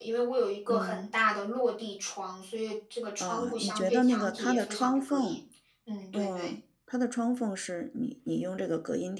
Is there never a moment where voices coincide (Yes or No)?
No